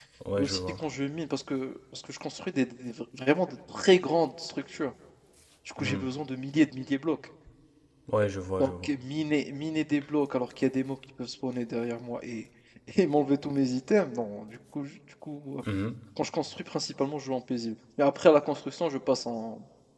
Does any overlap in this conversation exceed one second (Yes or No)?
No